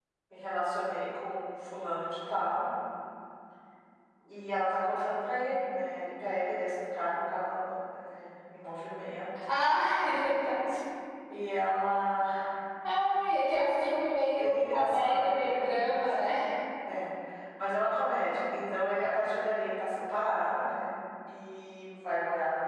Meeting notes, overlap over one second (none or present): present